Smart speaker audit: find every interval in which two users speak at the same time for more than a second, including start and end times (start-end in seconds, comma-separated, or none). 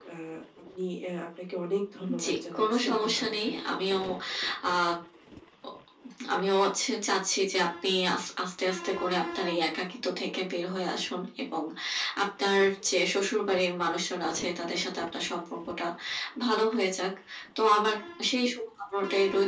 2.2-3.8